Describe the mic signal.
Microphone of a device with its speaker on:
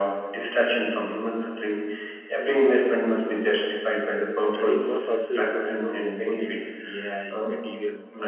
both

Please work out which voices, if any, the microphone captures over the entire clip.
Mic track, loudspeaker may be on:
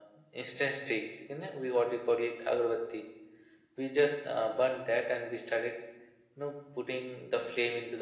echo only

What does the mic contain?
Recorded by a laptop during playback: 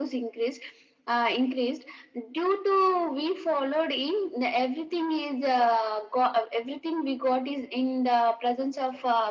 echo only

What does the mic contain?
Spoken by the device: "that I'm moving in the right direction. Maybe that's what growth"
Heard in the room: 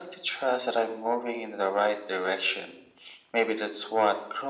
echo only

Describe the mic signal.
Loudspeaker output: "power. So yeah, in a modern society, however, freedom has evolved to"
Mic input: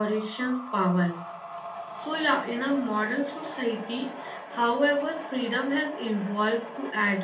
echo only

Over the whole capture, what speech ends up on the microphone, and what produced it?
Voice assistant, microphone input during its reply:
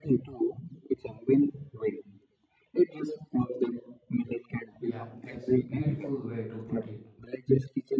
both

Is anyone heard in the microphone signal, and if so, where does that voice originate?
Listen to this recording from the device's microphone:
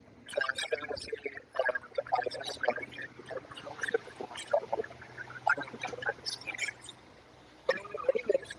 echo only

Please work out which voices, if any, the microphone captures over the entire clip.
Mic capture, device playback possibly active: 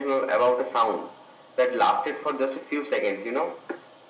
echo only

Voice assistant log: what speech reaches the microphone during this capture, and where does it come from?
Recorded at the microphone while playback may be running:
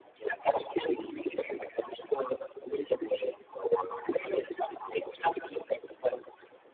echo only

